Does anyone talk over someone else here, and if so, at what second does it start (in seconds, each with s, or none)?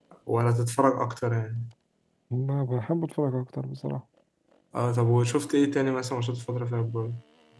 none